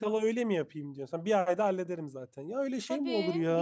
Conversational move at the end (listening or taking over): taking over